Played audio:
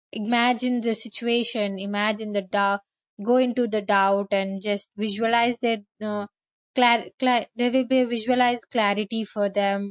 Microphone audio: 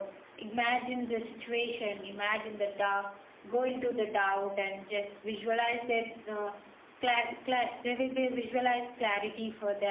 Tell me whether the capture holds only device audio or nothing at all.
Yes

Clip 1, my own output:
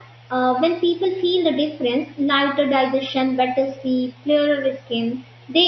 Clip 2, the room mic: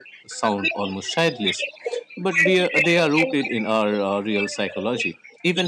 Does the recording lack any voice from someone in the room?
No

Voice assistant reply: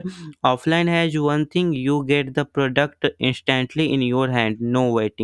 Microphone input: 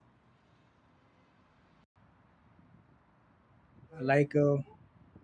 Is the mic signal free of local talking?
No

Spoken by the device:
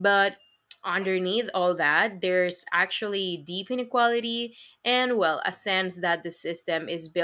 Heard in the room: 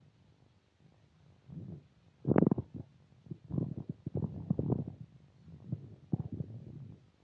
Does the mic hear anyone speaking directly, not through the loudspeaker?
No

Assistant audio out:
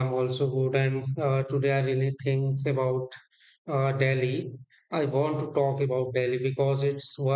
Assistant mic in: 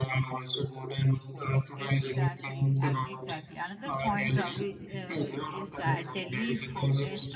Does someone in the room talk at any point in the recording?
Yes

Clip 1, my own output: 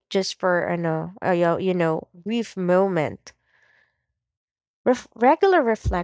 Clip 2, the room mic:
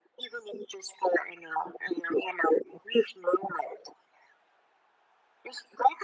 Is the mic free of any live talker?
Yes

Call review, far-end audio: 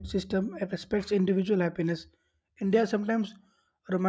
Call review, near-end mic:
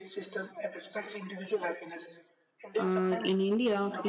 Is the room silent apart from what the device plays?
No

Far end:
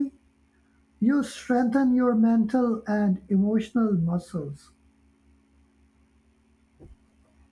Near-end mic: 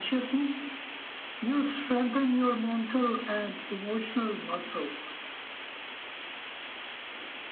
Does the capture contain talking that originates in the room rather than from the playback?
No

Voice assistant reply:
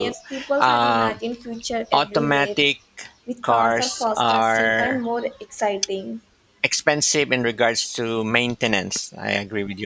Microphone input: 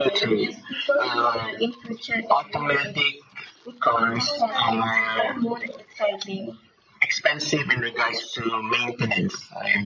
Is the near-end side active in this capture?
Yes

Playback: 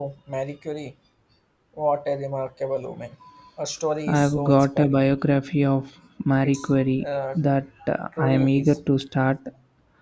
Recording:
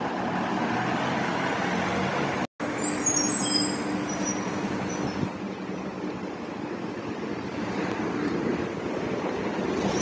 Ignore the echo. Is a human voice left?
No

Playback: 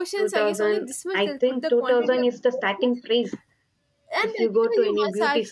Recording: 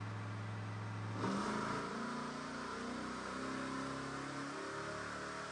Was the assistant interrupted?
No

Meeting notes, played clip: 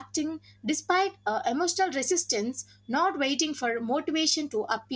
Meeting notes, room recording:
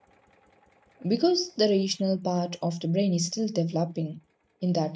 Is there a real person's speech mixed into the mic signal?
Yes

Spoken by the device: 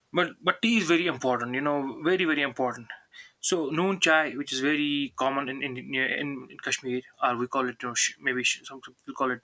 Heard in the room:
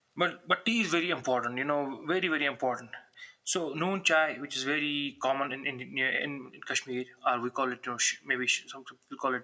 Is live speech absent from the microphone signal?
Yes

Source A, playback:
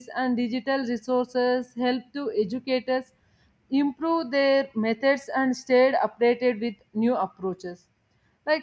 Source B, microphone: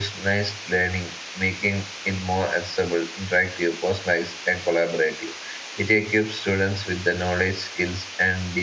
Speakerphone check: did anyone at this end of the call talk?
Yes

